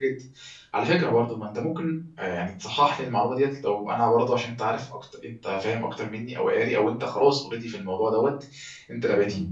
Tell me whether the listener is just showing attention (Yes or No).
Yes